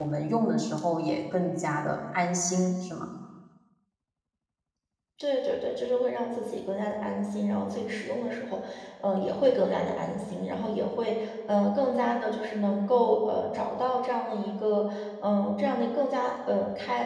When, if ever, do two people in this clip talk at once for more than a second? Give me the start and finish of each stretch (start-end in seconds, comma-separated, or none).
none